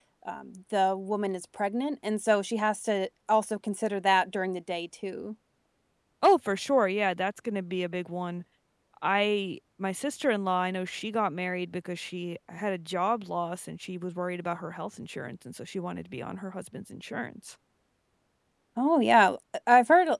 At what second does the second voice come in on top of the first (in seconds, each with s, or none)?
none